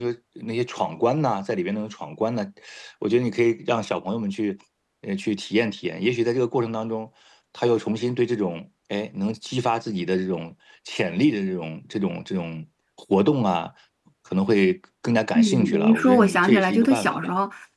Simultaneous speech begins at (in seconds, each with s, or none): 15.3 s